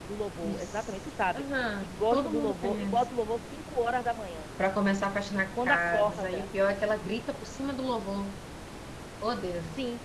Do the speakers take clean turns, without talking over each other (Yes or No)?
No